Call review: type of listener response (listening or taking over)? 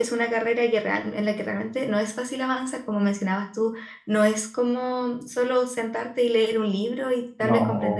listening